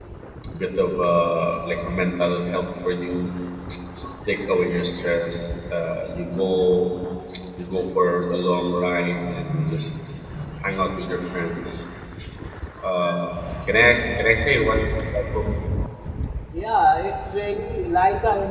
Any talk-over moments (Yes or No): No